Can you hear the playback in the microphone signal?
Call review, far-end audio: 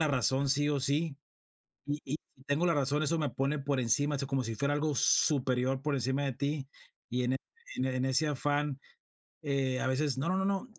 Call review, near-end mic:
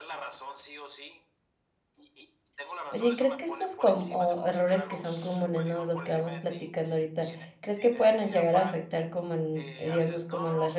Yes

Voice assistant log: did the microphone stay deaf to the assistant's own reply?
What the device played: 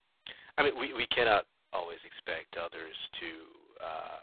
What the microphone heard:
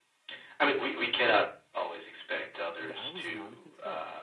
No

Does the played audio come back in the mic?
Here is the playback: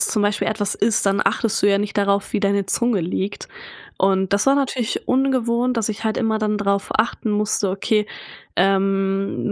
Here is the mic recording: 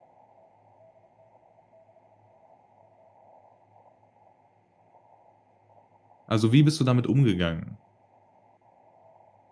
No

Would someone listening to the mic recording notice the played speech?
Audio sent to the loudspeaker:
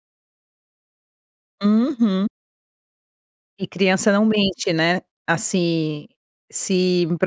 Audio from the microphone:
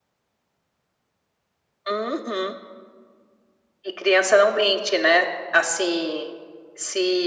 Yes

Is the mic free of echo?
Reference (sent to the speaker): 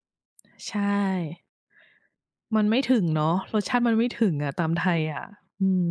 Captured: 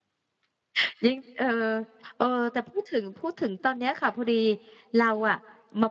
Yes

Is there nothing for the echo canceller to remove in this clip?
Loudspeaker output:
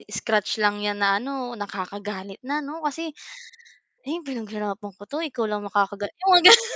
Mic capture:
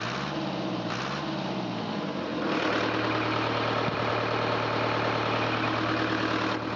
Yes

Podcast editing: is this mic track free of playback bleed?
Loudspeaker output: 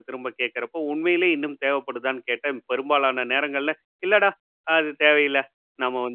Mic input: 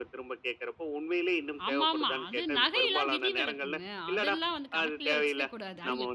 No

